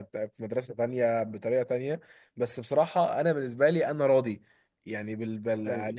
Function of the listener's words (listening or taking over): listening